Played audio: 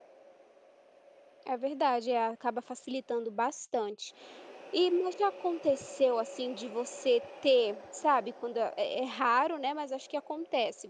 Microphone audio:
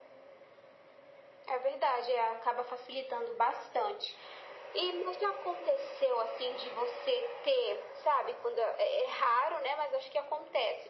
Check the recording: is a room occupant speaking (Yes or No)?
No